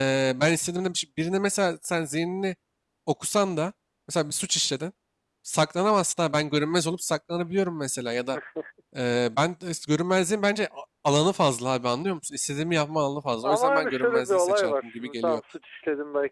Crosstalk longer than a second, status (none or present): present